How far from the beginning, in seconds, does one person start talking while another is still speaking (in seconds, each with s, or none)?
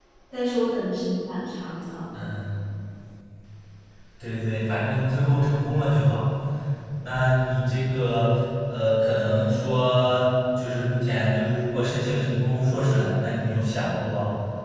none